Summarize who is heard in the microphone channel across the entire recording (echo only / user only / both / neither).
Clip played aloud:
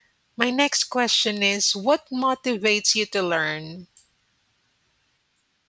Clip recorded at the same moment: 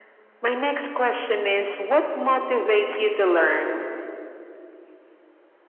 echo only